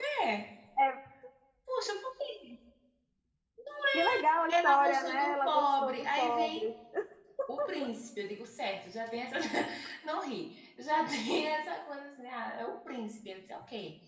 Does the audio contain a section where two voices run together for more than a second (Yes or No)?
Yes